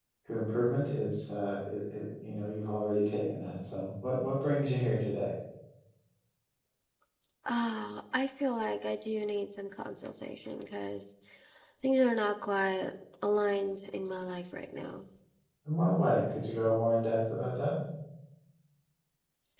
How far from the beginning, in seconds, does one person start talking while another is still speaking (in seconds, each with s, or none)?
none